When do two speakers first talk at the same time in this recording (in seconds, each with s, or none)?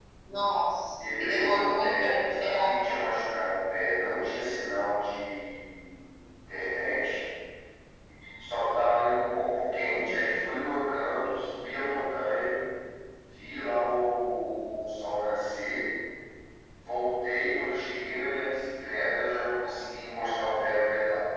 1.1 s